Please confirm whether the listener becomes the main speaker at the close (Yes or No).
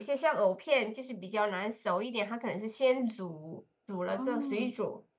No